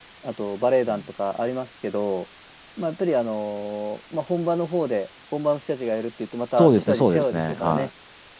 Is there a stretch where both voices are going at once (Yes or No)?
Yes